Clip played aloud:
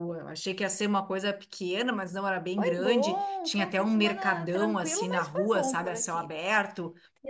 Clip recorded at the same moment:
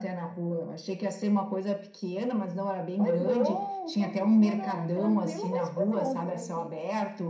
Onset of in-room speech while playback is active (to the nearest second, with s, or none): none